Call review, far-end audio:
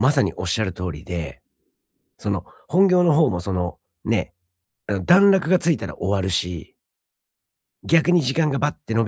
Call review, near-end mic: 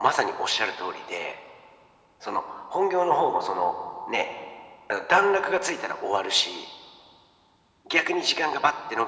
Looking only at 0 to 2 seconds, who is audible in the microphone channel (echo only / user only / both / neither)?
echo only